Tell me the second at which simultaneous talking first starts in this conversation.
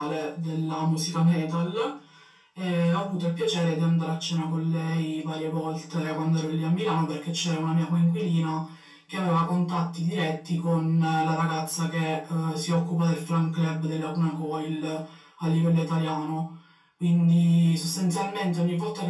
none

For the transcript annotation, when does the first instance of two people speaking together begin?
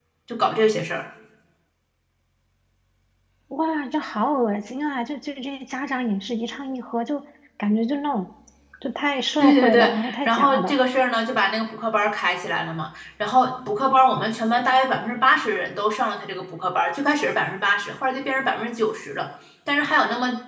9 s

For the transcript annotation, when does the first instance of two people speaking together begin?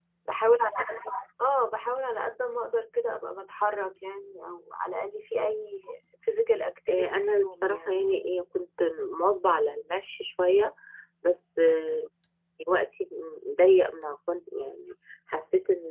7 s

